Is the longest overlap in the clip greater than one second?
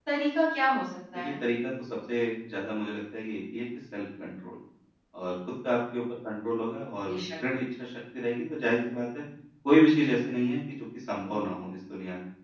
No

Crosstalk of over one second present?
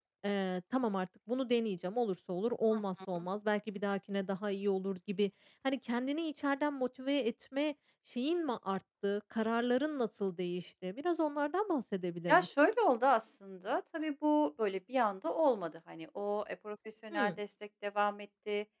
No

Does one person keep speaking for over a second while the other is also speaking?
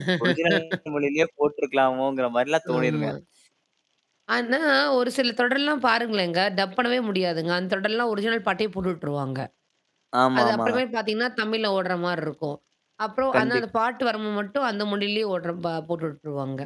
No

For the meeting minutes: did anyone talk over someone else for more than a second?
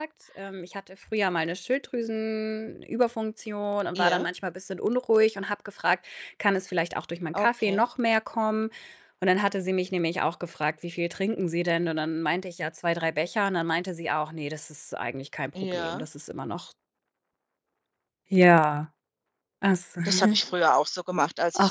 No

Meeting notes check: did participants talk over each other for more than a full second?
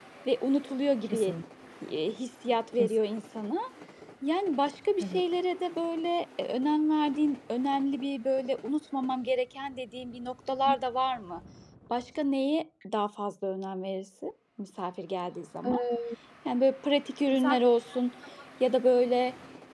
No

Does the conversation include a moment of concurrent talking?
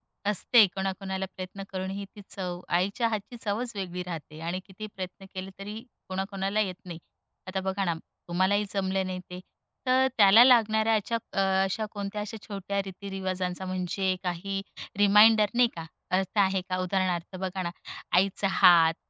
No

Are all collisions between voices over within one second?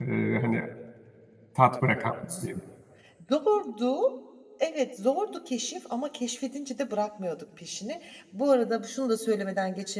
Yes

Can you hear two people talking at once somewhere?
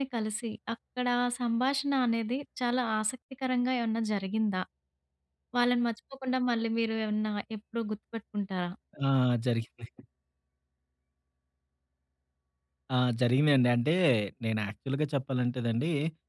No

